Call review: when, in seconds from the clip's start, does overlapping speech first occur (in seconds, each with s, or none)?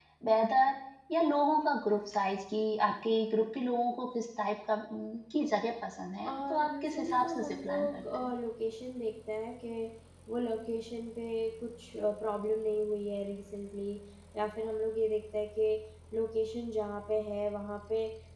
6.3 s